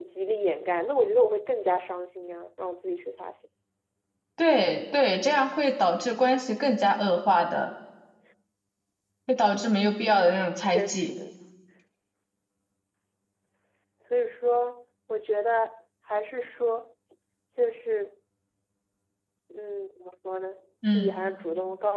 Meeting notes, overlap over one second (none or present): none